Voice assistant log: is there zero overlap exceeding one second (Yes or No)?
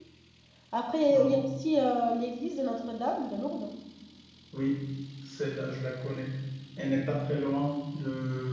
Yes